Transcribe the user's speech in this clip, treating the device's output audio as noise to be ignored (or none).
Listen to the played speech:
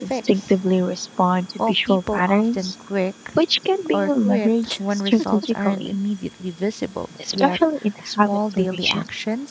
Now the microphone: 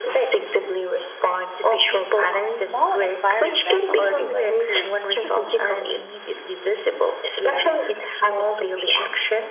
small environmental tweaks improved